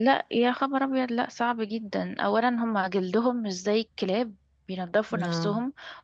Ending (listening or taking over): listening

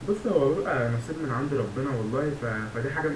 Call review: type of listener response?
listening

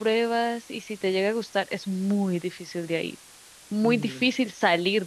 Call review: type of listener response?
listening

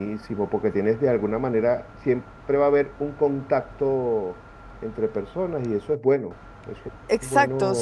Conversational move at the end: taking over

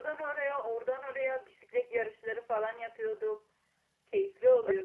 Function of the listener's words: taking over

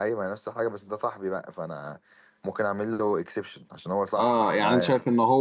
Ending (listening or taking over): taking over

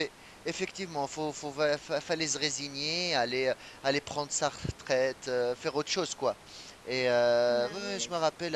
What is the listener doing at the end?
listening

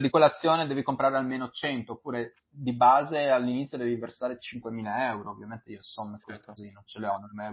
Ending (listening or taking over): listening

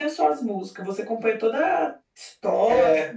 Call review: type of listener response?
taking over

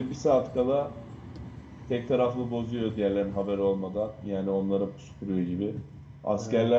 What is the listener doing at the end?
listening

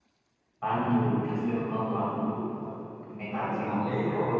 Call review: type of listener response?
taking over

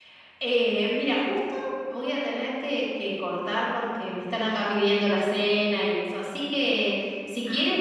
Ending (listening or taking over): listening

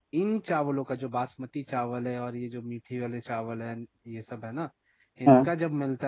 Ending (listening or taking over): listening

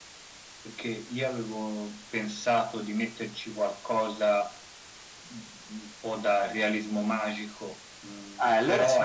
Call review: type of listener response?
taking over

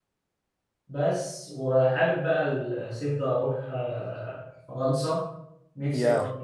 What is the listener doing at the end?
listening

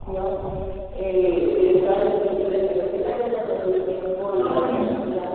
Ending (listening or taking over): listening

